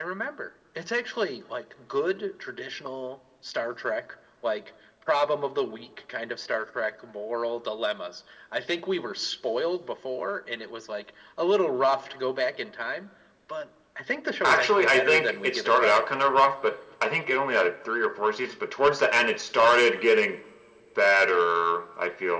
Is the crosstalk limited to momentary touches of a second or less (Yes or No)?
No